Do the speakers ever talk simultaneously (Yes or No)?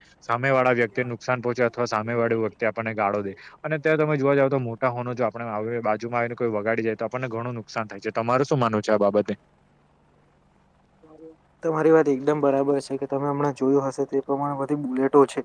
No